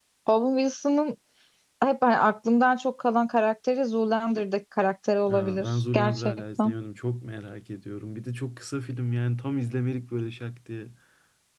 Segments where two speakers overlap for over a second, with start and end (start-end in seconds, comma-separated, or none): 5.3-6.7